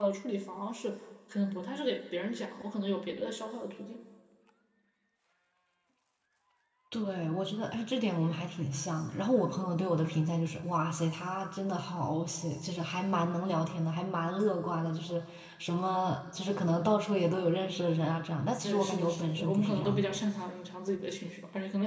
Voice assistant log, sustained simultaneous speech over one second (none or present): present